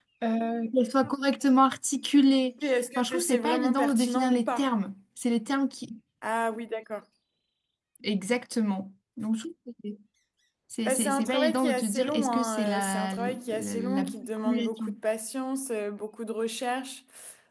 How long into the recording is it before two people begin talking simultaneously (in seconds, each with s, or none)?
3.0 s